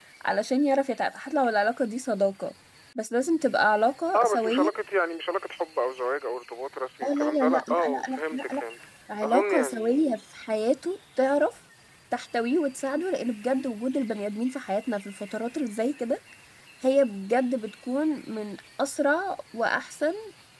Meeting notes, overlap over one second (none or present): present